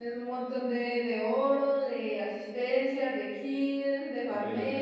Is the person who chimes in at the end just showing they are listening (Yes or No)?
No